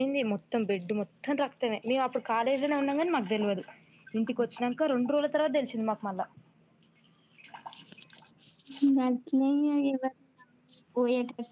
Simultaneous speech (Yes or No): No